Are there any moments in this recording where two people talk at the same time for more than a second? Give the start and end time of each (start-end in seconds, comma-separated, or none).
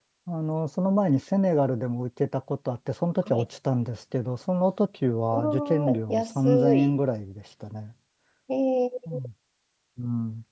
5.3-7.0